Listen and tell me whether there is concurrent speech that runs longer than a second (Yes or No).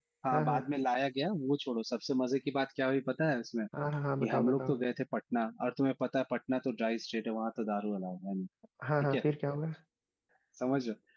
No